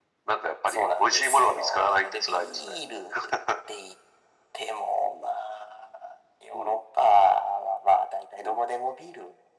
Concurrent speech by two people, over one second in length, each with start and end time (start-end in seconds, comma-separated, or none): 0.7-2.8